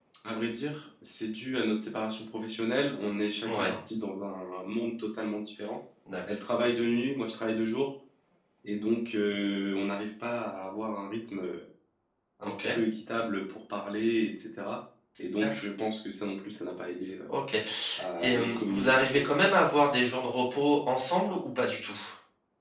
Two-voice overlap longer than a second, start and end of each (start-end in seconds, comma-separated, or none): 18.0-19.6